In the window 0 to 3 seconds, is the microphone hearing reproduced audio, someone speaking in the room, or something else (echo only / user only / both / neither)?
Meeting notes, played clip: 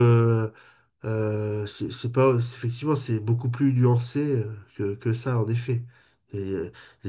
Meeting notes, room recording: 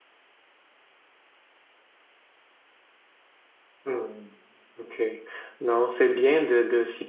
neither